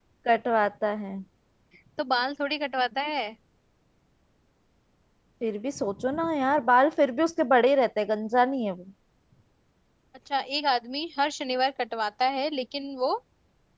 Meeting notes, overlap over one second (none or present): none